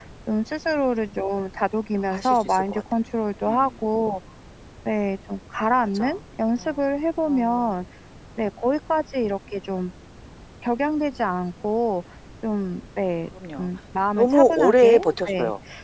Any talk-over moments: Yes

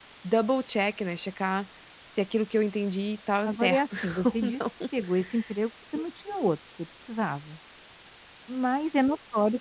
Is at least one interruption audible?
Yes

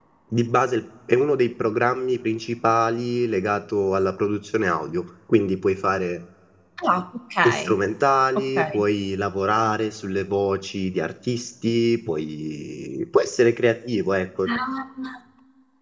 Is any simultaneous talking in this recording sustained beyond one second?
No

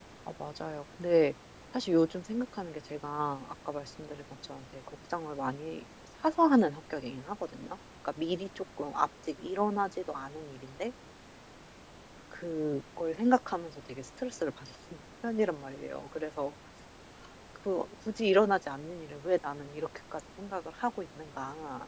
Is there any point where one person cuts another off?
No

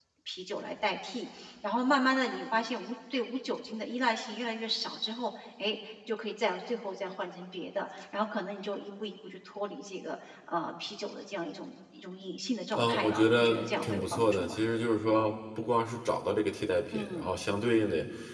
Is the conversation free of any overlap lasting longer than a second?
No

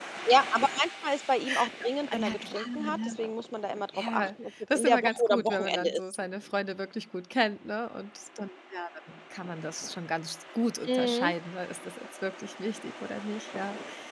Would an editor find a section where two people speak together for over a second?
Yes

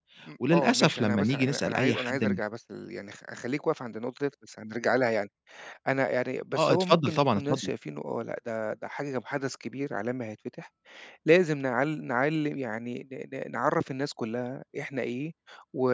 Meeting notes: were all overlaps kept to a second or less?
No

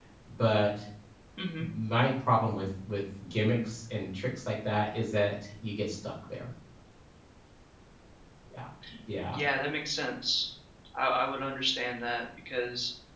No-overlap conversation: Yes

